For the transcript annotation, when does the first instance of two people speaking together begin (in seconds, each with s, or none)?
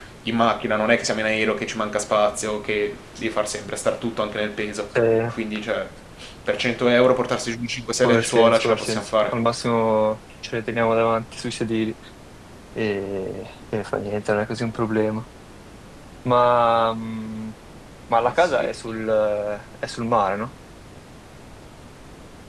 8.0 s